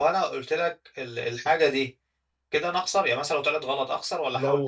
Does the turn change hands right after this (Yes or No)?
Yes